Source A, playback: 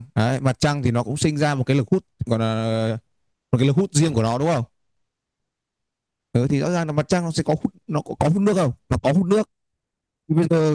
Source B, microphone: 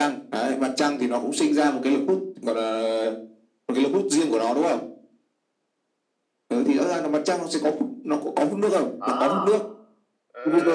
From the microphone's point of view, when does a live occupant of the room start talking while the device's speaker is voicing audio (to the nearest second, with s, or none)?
9 s